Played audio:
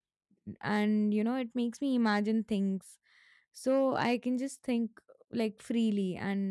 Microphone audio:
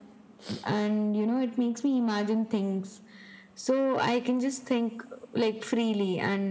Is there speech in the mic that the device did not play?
No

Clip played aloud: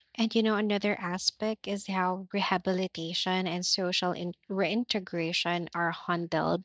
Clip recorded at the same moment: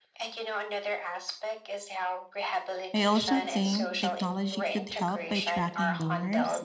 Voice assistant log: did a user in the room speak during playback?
Yes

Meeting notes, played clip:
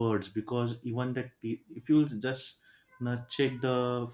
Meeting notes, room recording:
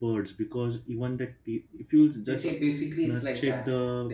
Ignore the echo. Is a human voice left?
Yes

